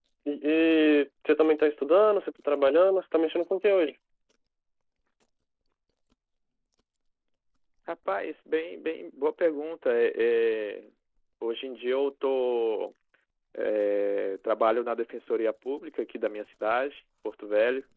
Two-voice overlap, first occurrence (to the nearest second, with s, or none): none